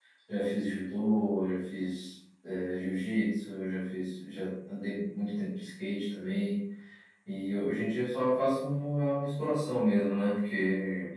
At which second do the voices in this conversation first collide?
none

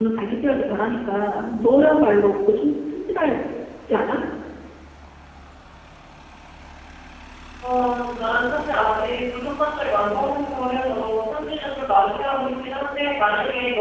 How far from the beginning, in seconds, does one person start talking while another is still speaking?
none

